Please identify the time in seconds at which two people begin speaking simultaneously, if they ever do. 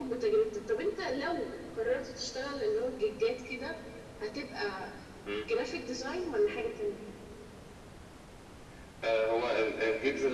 none

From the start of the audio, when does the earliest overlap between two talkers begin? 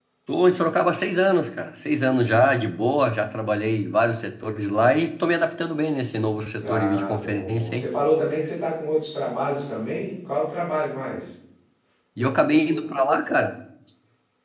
6.6 s

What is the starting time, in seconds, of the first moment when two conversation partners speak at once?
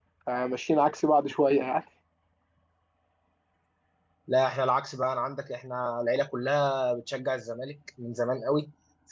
none

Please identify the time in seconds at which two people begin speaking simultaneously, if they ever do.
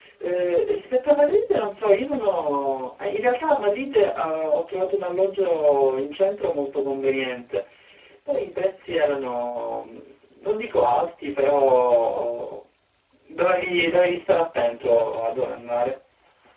none

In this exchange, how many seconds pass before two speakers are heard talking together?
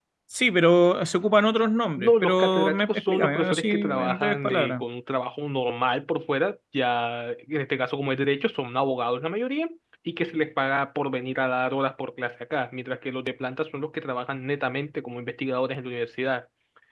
2.0 s

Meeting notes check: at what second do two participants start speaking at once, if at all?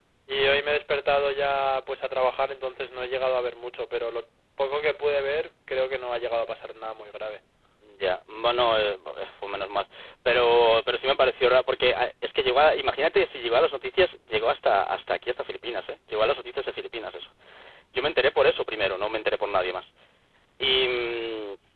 none

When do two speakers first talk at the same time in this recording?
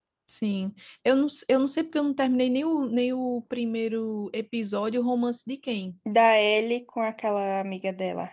none

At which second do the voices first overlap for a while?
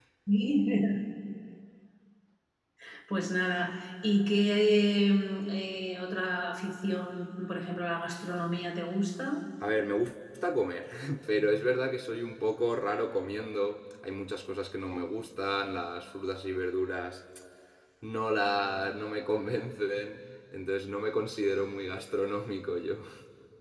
none

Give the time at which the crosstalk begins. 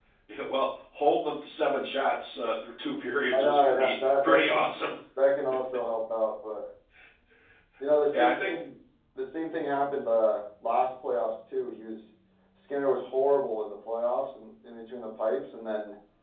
3.3 s

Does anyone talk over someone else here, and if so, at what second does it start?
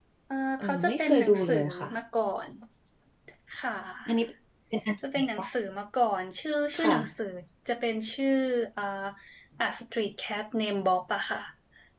0.6 s

